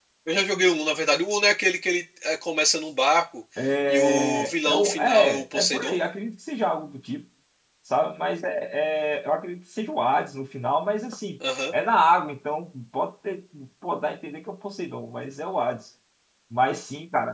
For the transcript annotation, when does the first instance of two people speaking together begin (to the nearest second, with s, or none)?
4 s